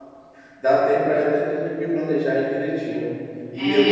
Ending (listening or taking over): taking over